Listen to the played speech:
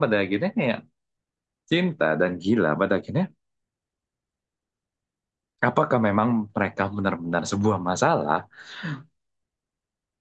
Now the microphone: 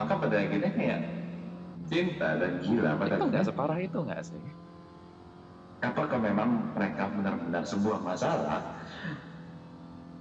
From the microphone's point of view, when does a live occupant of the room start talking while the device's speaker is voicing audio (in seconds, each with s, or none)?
3.1 s